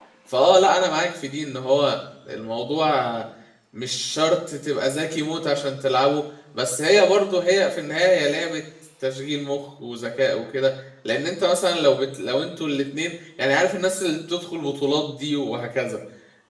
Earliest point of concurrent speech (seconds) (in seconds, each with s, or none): none